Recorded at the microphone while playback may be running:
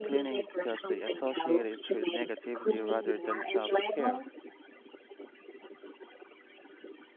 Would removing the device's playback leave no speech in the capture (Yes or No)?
No